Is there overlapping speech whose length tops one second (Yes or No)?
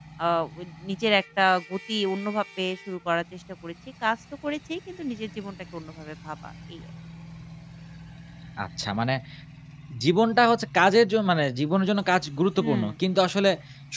No